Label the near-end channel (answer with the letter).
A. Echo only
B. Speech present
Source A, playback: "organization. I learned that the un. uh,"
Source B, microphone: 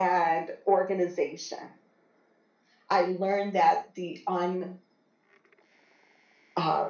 A